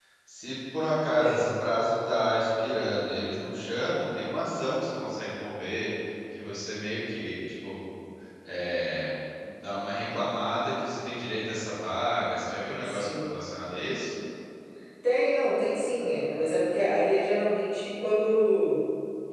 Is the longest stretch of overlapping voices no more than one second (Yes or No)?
Yes